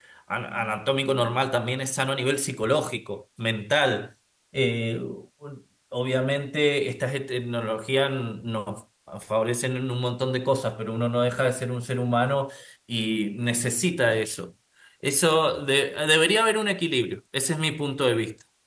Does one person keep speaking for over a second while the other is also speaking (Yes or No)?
No